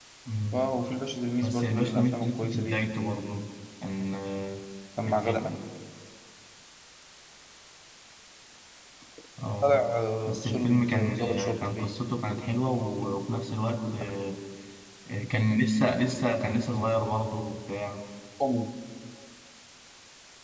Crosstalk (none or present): present